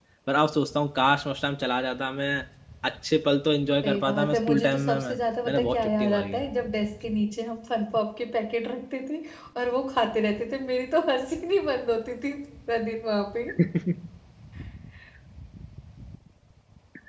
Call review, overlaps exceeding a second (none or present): present